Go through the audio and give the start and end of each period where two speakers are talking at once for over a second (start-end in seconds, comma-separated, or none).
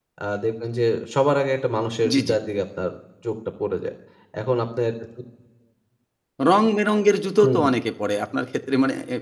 none